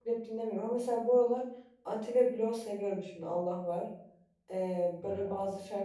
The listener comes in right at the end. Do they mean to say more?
No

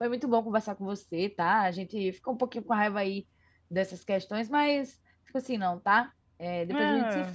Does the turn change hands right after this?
Yes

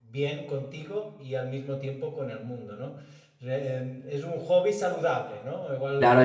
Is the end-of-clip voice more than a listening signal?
Yes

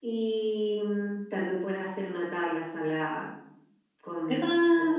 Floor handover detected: Yes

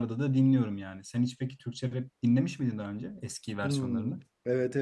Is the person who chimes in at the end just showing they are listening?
No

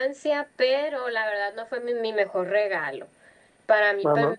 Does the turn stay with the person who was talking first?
Yes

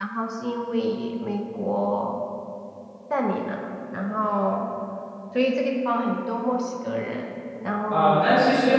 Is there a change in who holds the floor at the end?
Yes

